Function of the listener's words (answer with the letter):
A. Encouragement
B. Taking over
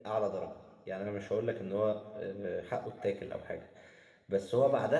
A